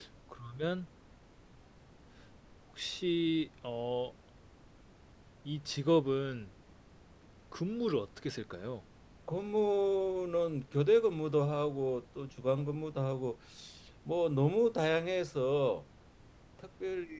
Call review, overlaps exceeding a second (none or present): none